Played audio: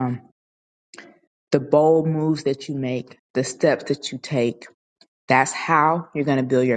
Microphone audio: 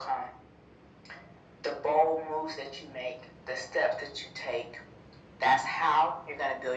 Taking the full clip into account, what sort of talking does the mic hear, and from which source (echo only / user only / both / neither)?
echo only